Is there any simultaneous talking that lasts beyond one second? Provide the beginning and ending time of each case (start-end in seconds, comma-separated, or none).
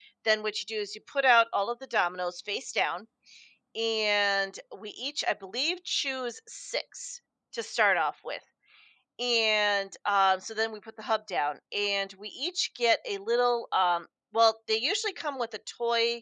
none